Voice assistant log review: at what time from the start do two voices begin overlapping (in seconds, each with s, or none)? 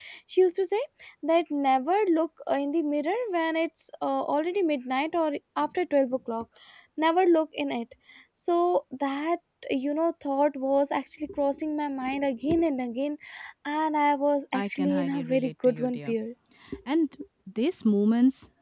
14.5 s